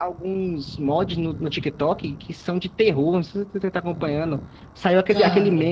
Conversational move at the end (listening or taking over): listening